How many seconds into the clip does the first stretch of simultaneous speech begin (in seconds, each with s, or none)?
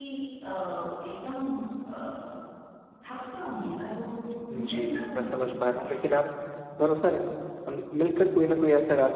4.6 s